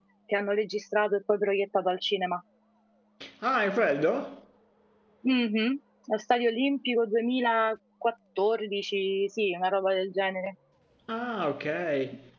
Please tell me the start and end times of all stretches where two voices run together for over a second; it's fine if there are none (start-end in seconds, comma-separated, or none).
none